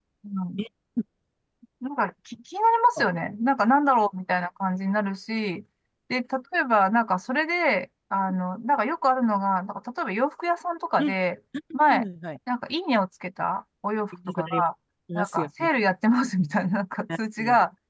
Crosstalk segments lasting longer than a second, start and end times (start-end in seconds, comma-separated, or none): none